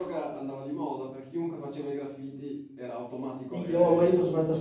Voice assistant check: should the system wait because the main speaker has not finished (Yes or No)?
No